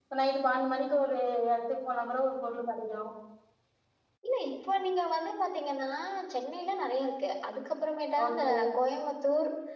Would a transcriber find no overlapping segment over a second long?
Yes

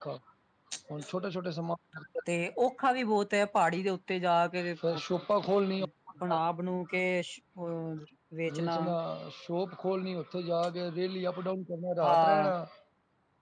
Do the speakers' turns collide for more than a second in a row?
No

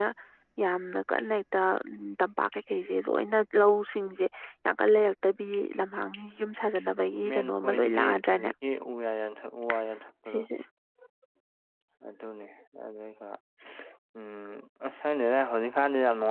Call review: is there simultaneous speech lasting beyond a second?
Yes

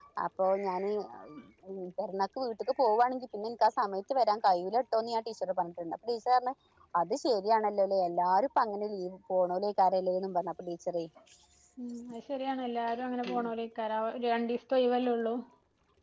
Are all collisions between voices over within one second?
Yes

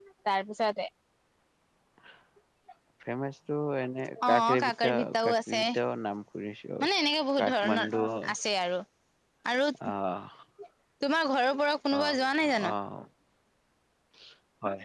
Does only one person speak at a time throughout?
No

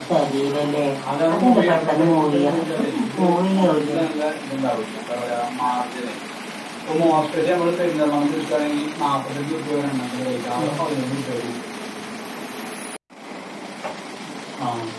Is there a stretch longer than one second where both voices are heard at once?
Yes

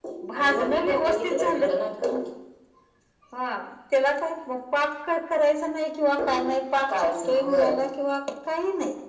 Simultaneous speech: Yes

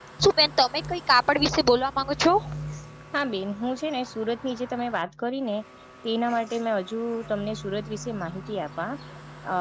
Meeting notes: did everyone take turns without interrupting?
No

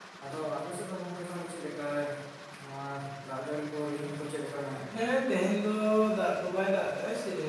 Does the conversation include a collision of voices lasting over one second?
No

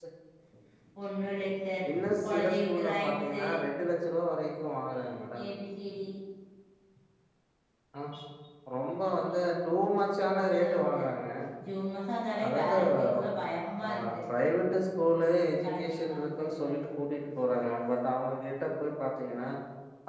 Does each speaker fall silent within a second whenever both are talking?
No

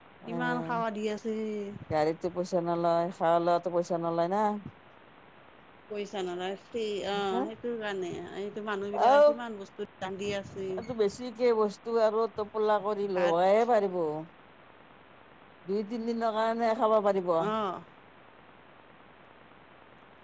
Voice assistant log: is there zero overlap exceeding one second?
Yes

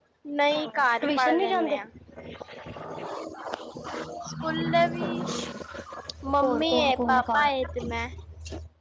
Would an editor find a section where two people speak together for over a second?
Yes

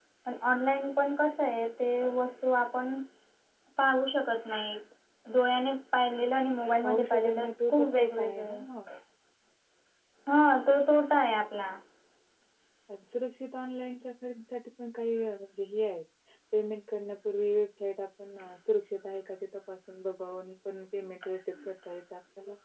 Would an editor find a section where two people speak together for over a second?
Yes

